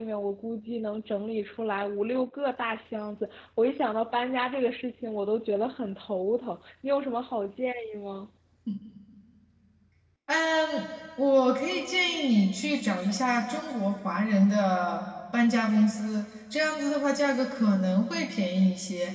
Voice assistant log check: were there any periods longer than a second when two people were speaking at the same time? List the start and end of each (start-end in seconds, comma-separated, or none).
none